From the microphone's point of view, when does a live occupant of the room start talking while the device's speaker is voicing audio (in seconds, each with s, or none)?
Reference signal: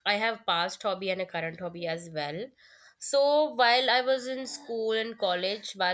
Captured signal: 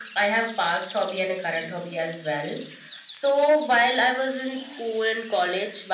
none